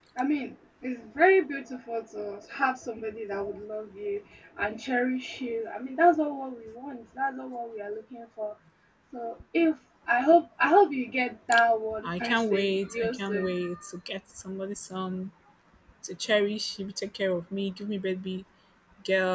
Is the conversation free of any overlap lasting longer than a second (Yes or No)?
No